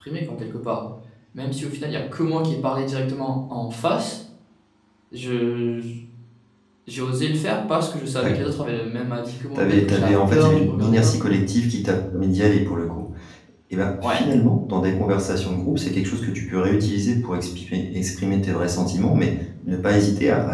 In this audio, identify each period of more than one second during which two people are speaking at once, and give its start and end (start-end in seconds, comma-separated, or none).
9.6-11.3